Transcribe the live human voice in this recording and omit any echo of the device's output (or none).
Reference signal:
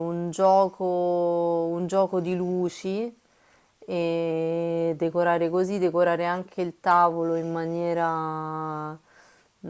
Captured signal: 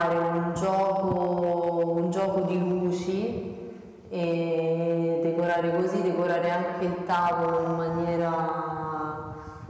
none